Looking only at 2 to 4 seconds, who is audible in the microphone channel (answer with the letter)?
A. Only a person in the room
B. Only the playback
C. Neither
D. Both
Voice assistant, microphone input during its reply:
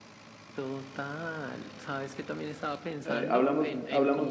D